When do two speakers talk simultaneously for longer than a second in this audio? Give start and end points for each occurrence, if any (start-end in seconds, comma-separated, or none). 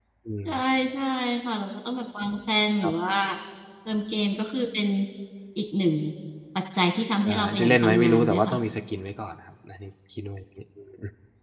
7.2-8.6